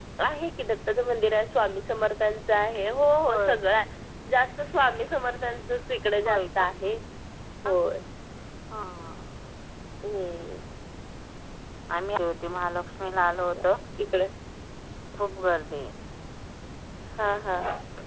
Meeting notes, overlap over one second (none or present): none